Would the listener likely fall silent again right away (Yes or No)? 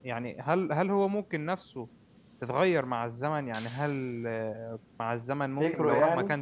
Yes